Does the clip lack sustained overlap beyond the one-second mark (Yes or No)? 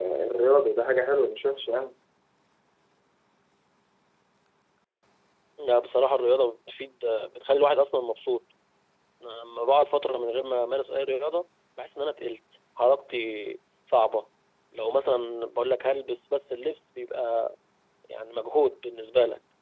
Yes